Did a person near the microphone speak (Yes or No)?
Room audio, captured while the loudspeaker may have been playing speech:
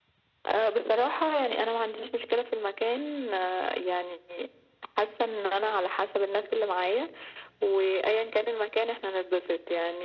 No